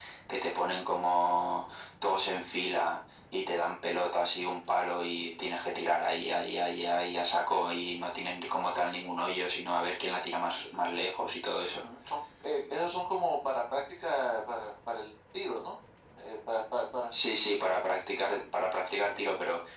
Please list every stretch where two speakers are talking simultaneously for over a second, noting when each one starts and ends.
none

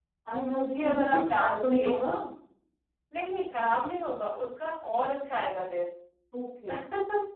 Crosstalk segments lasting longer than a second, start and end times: 0.5-1.9

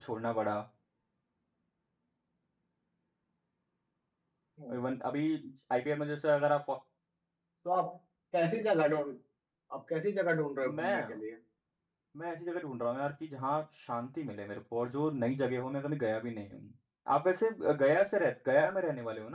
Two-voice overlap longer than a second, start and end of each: none

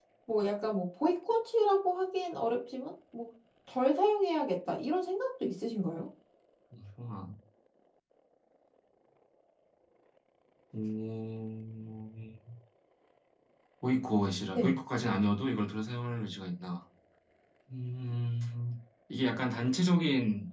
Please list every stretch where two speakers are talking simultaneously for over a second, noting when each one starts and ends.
none

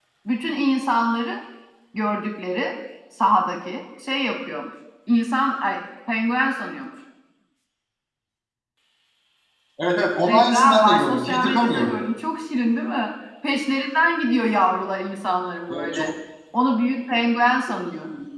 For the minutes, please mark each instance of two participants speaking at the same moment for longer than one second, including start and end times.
10.2-11.9

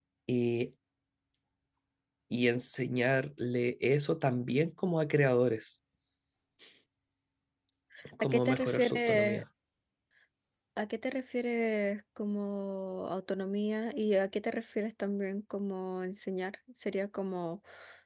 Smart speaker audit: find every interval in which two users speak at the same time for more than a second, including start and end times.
8.2-9.4

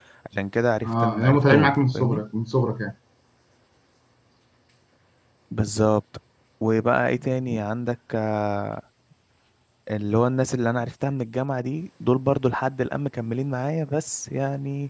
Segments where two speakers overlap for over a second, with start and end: 0.8-2.2

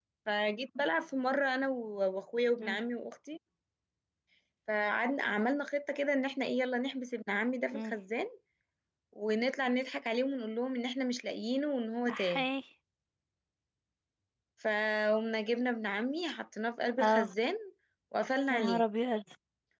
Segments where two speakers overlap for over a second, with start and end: none

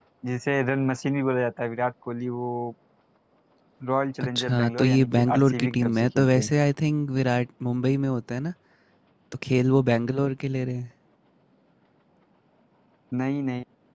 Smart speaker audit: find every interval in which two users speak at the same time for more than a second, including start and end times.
4.2-6.5

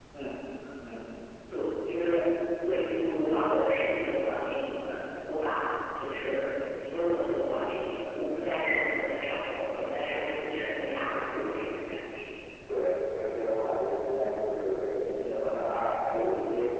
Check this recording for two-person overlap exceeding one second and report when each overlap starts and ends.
none

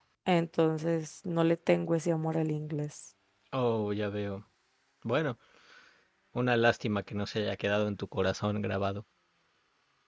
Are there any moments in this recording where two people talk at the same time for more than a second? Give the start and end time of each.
none

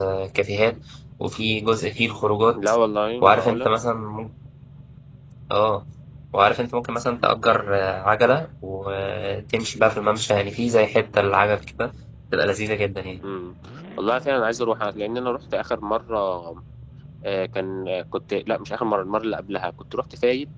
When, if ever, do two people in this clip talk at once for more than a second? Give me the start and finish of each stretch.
none

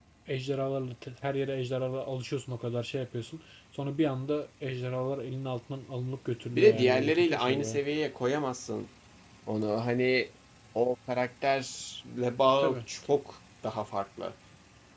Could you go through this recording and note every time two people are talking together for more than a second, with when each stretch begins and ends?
6.5-7.8

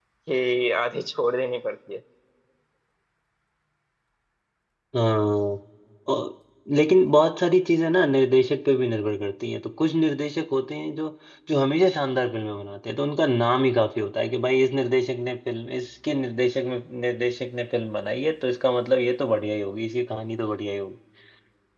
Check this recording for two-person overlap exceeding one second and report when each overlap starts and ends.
none

